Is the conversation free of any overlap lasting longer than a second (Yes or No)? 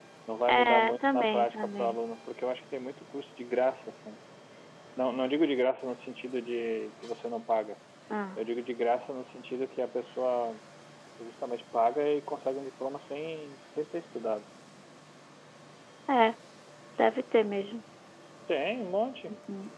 No